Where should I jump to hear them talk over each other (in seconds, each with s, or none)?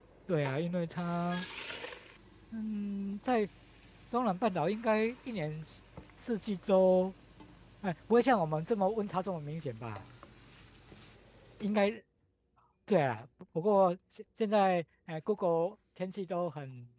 none